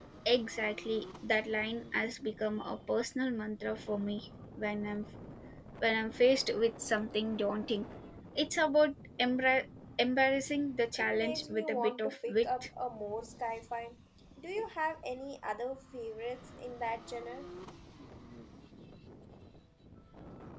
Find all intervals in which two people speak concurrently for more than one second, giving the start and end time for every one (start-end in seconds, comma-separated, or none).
11.0-12.7